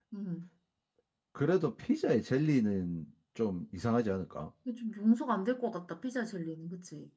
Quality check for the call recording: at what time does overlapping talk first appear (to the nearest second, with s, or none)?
none